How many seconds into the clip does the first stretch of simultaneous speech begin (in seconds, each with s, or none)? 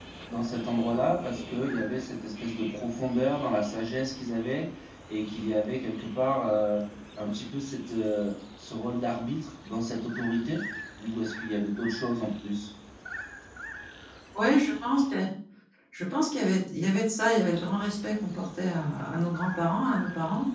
none